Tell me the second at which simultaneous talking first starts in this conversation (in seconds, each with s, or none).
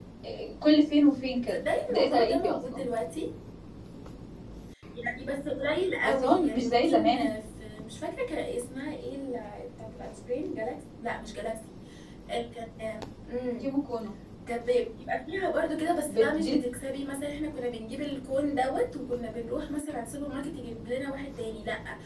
1.5 s